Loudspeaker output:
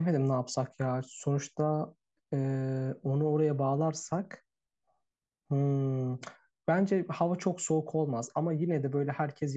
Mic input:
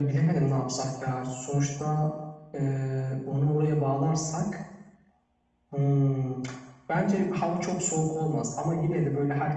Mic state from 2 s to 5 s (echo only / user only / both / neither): echo only